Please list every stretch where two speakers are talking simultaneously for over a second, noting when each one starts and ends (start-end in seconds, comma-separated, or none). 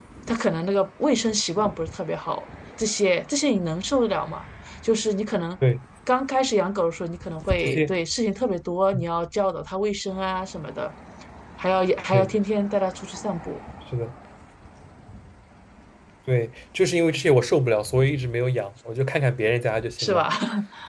none